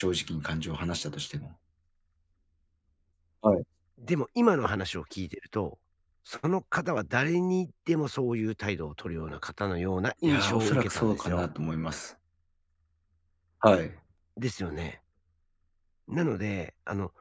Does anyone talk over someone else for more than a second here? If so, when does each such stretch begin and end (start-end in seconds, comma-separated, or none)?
10.2-11.4